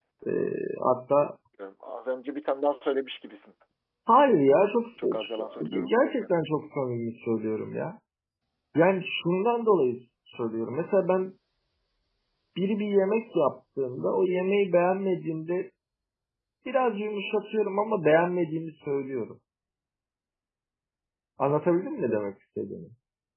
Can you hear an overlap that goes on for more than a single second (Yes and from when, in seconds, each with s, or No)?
Yes, from 5.0 s